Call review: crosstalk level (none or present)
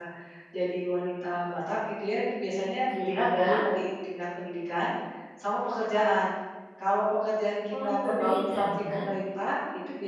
present